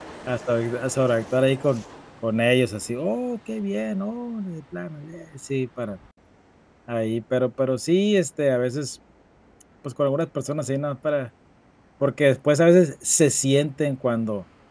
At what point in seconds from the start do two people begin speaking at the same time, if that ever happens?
none

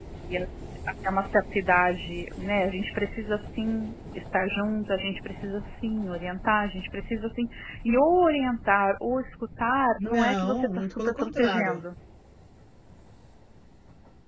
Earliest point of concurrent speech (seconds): 10.0 s

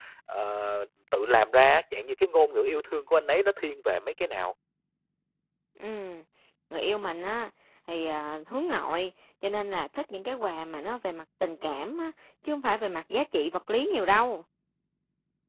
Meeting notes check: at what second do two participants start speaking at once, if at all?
none

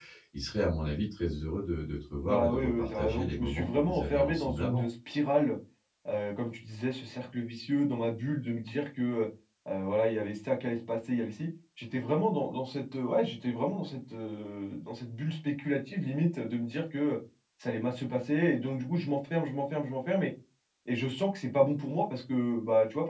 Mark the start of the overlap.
2.2 s

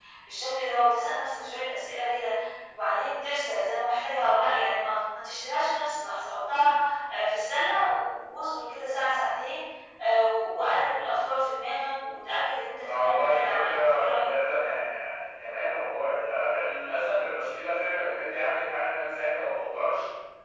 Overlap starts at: 12.8 s

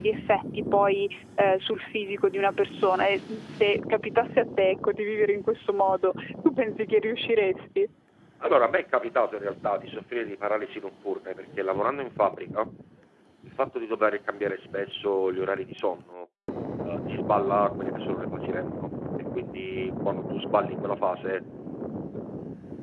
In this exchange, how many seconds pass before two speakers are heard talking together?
none

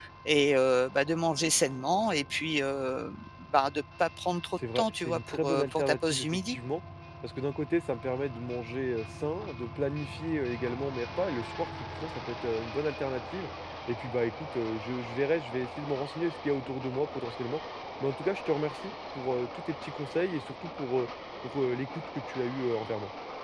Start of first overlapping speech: 4.6 s

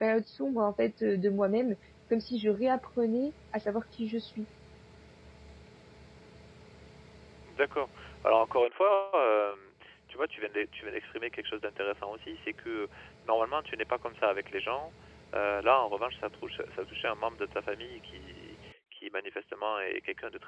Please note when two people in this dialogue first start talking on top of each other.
none

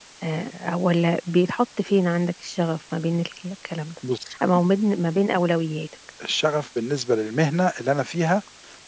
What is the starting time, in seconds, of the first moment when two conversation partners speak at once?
none

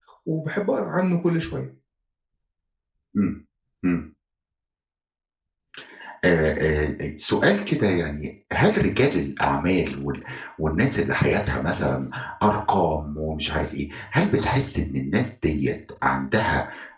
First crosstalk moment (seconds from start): none

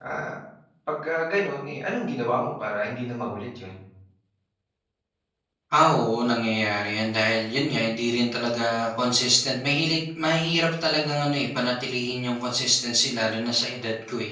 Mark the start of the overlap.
none

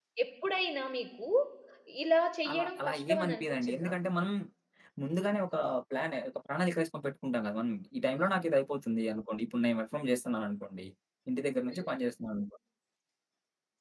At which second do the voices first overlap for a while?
2.5 s

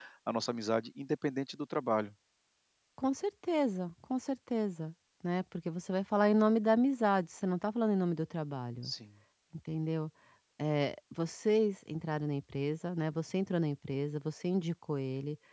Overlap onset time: none

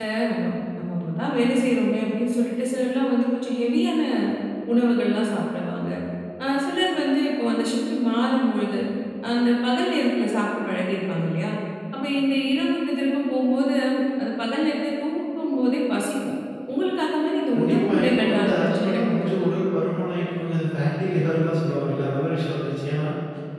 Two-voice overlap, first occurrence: 17.5 s

